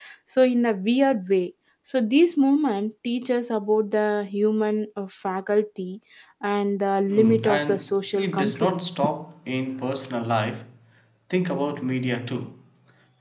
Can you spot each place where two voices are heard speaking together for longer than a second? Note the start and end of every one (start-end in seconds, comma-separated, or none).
7.1-8.8